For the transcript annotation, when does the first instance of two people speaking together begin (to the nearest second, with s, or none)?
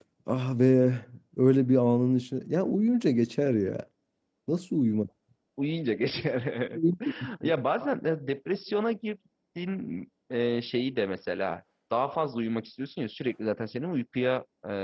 none